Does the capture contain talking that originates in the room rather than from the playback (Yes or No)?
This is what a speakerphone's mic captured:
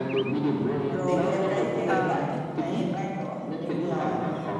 Yes